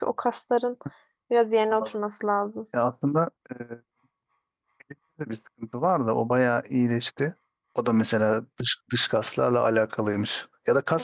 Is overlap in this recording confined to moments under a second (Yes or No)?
Yes